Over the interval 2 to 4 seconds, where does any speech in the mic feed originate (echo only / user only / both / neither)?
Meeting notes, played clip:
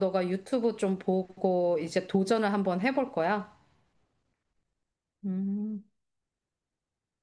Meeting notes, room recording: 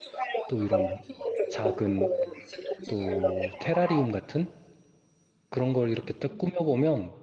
both